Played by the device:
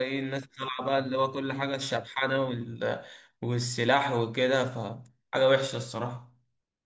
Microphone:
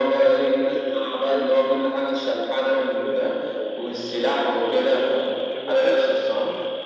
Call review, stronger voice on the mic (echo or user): echo